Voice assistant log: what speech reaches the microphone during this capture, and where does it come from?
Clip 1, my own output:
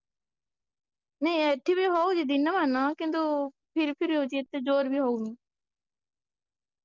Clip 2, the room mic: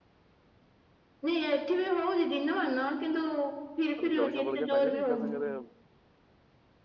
both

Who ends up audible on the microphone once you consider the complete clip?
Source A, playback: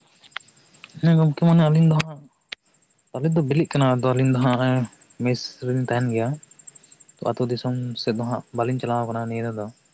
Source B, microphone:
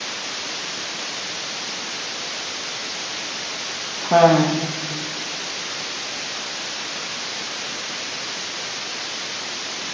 user only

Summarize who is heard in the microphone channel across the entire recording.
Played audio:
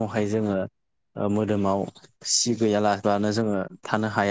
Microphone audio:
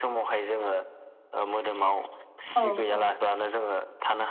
both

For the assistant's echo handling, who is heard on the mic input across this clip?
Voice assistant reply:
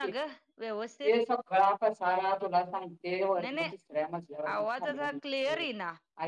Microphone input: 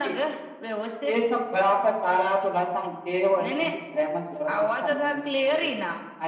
echo only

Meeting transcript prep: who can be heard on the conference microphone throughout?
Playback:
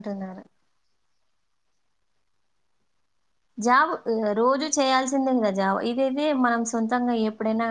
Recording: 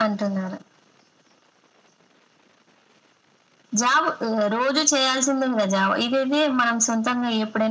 echo only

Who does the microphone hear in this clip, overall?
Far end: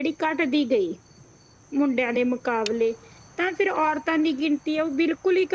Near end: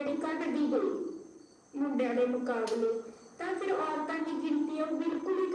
echo only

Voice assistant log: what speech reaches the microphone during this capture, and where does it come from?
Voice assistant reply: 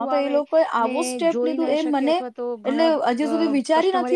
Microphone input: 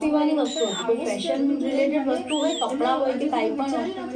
both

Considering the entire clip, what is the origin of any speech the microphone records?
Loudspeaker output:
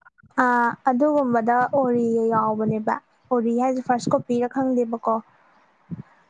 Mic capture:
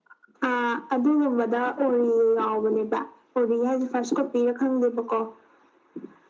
echo only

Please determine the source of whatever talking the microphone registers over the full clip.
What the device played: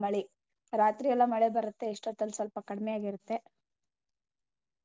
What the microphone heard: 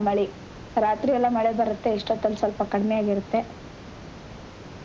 echo only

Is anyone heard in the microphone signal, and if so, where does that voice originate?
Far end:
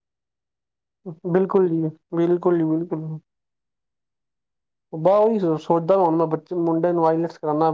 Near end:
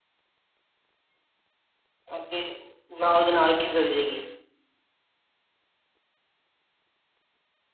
user only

